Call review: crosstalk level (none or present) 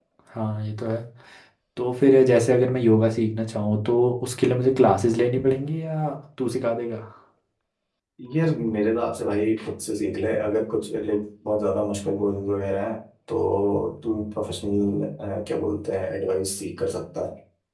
none